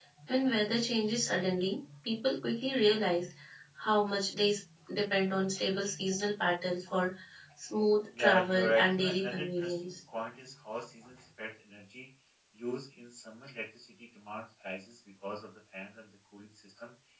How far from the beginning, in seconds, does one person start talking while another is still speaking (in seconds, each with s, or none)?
8.2 s